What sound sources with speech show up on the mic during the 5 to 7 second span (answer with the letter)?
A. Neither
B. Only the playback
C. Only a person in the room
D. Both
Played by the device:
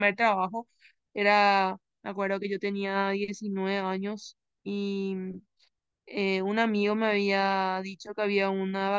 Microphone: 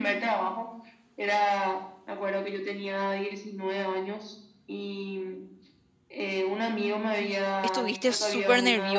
B